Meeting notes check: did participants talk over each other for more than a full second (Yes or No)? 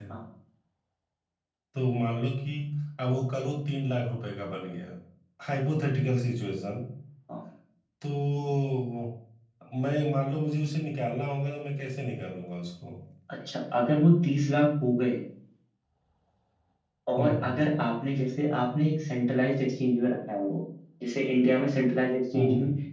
No